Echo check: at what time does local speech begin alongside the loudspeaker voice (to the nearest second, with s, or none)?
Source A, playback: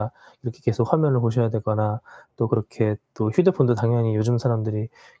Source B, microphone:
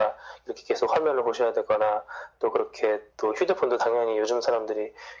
none